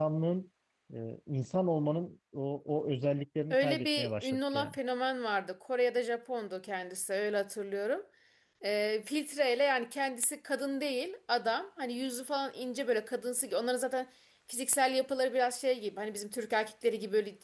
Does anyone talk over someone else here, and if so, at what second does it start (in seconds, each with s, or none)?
3.5 s